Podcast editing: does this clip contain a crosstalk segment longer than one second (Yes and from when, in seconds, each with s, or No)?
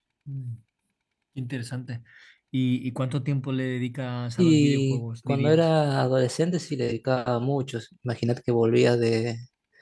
Yes, from 4.4 s